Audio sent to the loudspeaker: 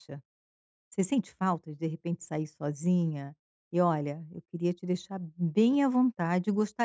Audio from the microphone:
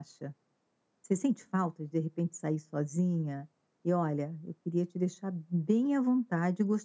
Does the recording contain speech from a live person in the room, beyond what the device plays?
No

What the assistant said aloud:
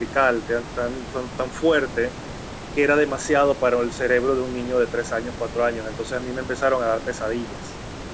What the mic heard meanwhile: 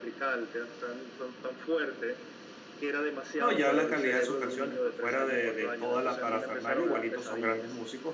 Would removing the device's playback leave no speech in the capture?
No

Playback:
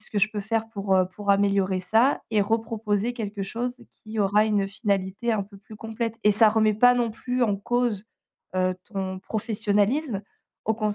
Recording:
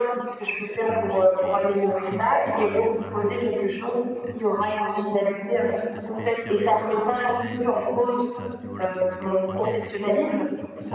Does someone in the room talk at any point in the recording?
Yes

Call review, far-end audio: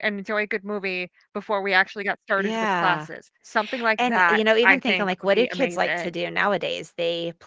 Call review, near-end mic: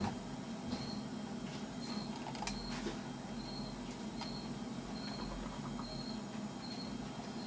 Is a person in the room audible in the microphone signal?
No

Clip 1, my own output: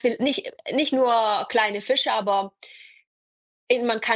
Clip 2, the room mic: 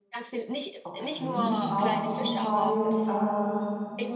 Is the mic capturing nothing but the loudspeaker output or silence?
No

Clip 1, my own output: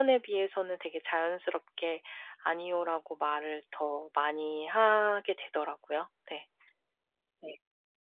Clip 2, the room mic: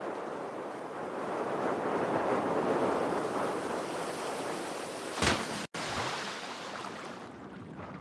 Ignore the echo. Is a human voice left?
No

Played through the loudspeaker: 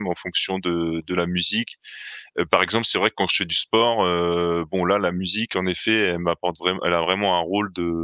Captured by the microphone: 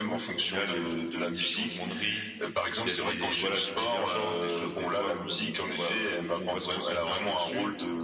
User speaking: Yes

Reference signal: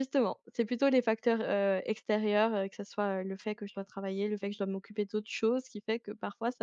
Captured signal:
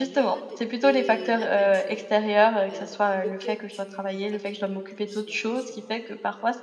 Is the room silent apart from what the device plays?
No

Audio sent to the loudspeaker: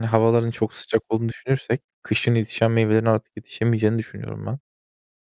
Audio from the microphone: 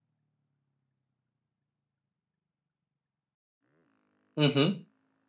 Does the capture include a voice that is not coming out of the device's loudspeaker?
Yes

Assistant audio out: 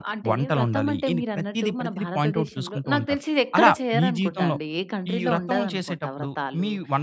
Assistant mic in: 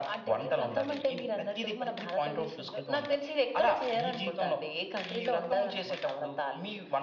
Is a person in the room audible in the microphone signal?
No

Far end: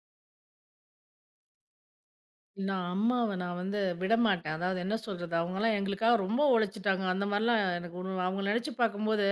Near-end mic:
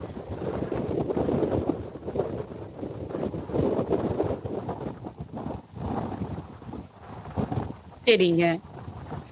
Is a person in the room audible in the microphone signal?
Yes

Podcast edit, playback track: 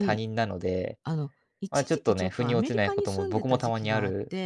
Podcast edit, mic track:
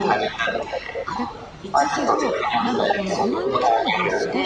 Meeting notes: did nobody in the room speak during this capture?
No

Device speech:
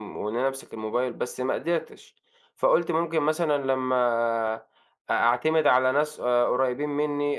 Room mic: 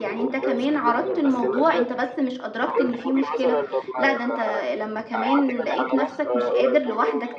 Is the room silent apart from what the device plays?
No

